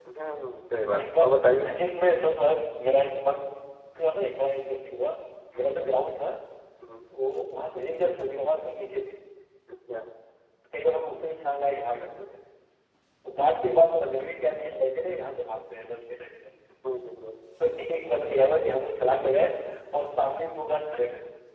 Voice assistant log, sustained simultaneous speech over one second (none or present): none